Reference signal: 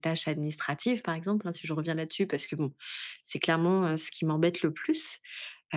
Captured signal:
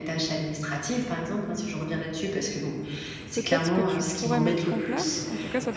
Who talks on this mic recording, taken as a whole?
both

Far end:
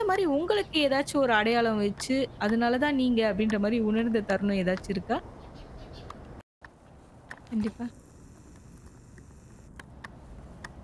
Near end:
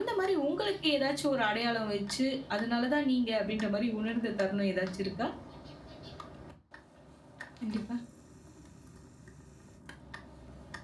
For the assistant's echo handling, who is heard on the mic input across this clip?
echo only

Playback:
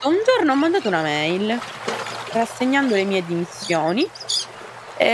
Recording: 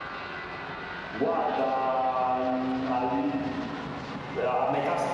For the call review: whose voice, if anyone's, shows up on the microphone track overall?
user only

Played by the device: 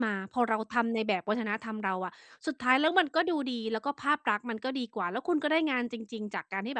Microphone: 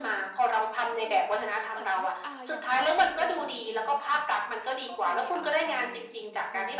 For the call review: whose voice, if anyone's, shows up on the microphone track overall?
both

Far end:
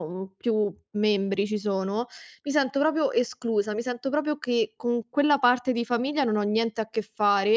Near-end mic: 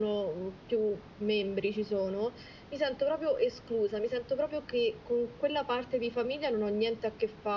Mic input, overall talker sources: echo only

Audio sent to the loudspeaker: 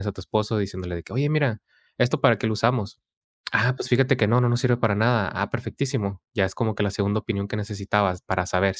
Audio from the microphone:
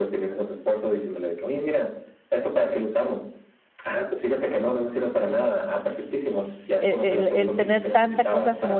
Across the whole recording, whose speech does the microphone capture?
both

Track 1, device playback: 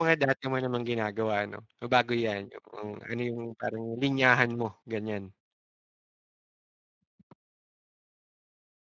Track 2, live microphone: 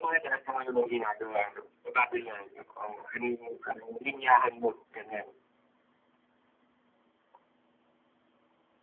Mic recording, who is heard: echo only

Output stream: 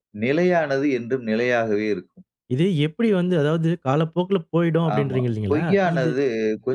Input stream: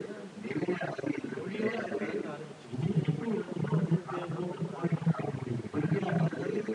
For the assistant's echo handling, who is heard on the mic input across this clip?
both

